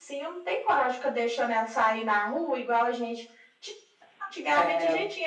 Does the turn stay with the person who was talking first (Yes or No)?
Yes